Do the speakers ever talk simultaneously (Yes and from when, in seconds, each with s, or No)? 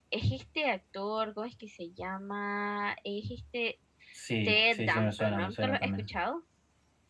Yes, from 4.4 s